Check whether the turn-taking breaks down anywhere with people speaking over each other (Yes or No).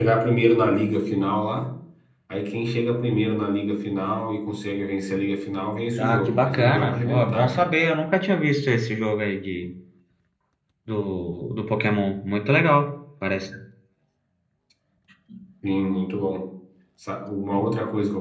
Yes